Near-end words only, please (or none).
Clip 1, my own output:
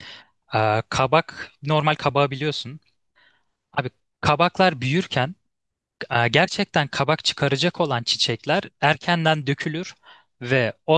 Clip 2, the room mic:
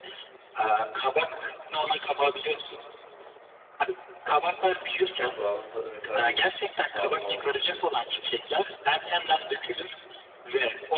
yaprağının tadı mesela bir sarma